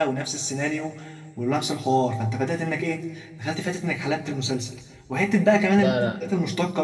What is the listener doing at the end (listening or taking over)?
listening